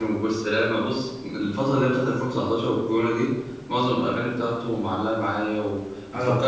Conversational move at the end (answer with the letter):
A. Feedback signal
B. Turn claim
A